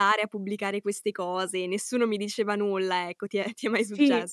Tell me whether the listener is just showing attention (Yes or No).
No